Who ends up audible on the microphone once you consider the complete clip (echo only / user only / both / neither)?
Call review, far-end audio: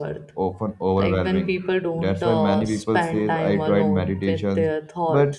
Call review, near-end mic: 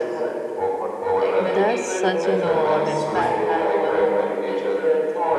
both